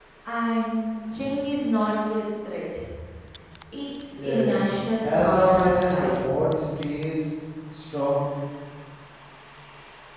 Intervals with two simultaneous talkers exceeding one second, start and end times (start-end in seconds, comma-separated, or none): 5.0-6.3